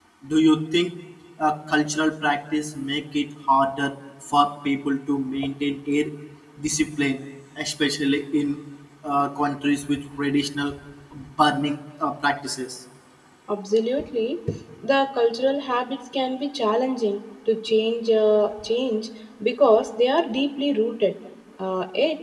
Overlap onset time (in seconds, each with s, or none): none